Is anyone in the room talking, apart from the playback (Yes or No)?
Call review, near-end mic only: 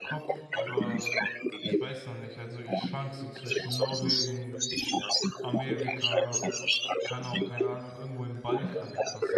Yes